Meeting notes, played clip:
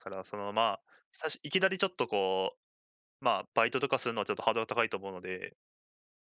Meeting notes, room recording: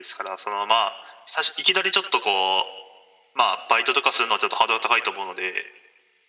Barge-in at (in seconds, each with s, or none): none